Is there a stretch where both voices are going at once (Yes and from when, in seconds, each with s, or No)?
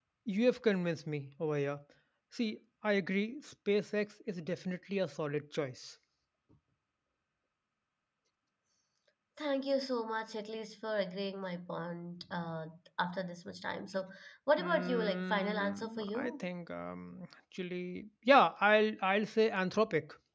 Yes, from 14.6 s